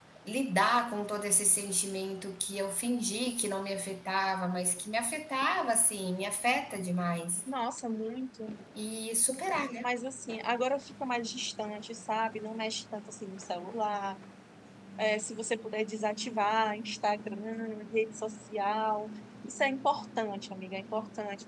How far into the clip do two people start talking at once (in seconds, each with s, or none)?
none